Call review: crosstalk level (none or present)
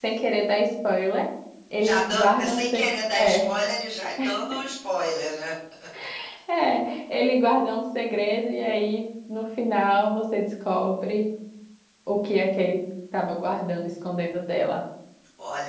present